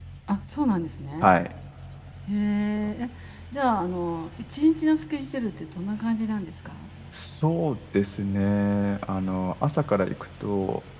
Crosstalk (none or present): none